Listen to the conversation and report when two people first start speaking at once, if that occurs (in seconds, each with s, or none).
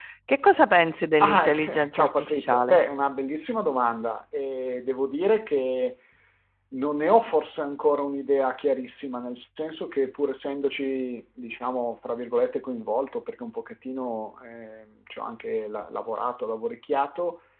1.2 s